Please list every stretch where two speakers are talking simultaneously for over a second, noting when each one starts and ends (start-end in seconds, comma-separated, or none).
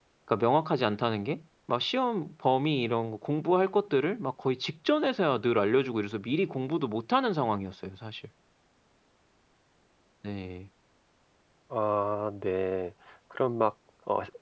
none